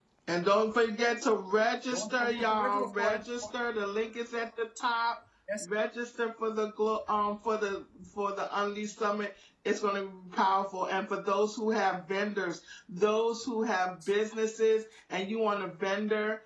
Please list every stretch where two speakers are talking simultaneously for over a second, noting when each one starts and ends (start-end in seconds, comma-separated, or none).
1.9-3.5